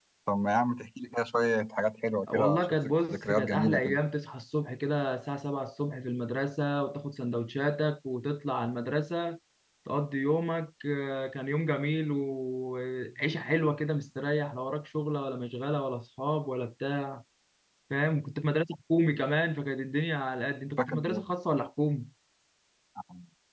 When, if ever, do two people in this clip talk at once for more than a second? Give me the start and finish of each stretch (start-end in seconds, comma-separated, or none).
2.3-4.0